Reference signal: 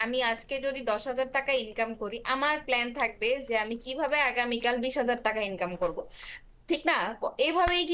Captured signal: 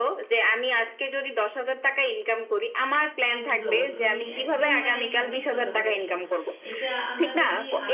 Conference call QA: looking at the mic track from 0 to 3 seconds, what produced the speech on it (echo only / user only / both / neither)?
echo only